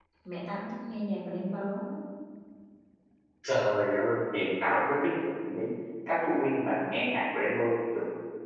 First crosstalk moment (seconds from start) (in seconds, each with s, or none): none